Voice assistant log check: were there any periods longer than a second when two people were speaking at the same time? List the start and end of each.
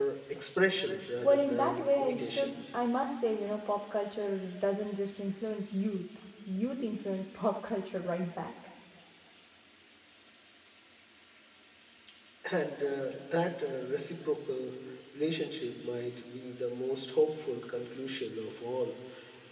1.2-2.5

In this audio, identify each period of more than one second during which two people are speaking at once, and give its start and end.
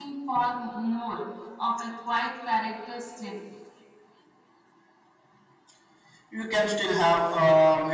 none

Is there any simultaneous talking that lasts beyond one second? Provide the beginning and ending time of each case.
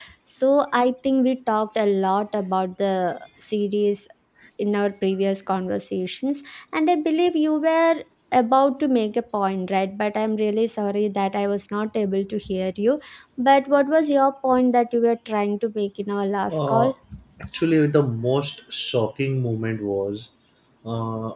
none

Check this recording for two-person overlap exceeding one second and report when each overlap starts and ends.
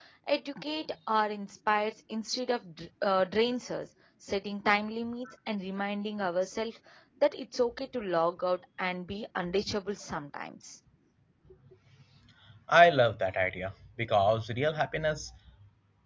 none

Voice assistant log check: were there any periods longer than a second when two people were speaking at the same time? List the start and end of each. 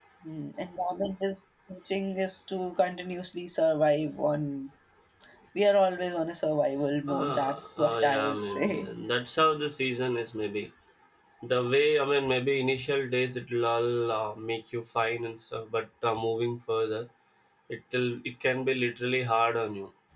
7.1-8.9

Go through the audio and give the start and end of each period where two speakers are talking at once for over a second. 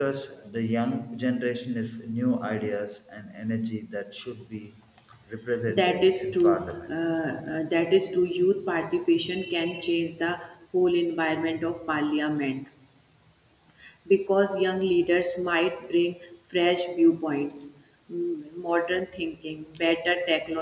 5.7-6.9

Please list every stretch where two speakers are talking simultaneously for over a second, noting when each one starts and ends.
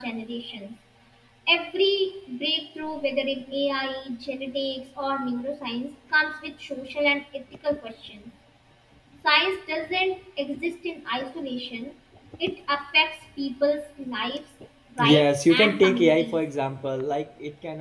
15.0-16.4

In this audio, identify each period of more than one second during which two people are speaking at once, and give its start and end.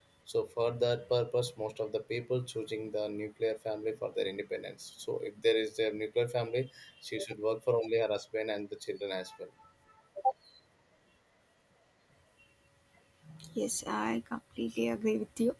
none

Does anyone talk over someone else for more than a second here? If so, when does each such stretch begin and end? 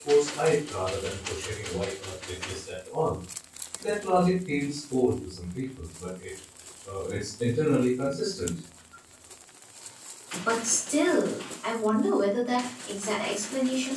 none

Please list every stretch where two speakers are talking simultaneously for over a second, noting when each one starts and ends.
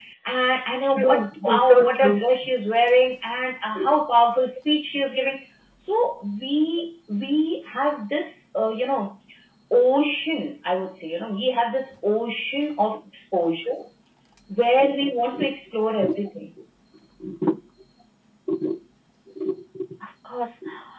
0.8-2.2

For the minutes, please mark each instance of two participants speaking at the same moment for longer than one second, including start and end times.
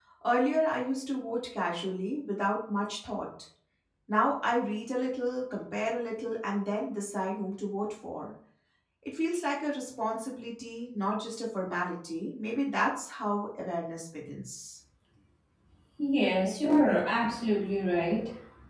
none

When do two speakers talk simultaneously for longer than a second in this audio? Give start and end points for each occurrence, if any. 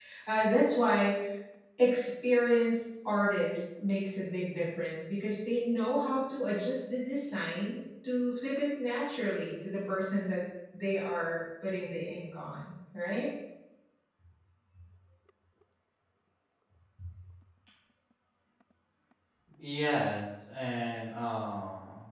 none

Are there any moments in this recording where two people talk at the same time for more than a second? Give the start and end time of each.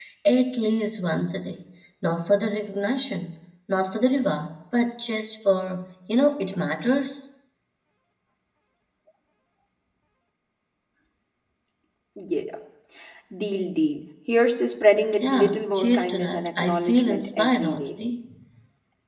15.2-17.9

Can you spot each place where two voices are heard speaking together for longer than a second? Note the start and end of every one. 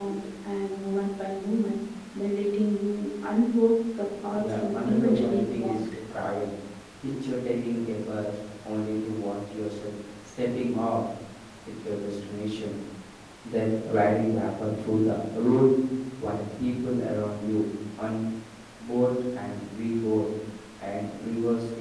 4.3-5.9

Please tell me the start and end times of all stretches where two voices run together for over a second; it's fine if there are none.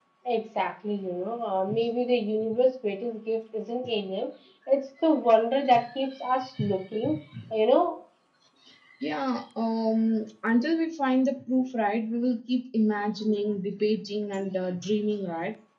none

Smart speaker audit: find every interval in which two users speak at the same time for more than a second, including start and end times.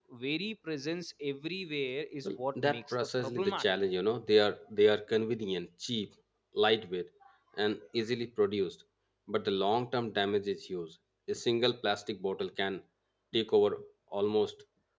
2.2-3.6

